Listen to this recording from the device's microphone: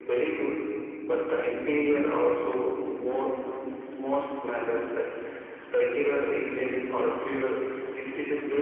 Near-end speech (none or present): none